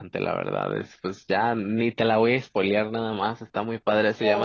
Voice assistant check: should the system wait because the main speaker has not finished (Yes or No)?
Yes